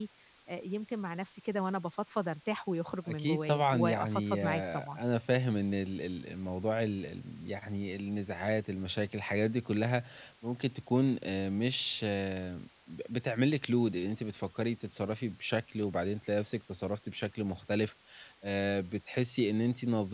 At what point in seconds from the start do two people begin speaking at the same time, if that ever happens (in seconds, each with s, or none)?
3.1 s